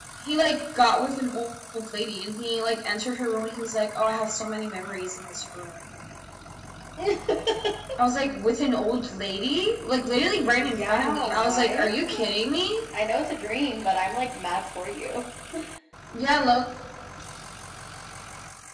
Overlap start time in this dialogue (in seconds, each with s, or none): 10.5 s